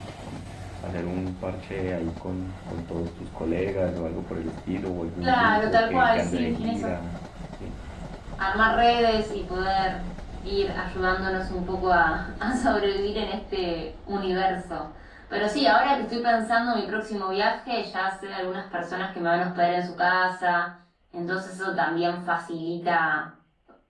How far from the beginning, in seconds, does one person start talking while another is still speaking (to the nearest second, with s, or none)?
5 s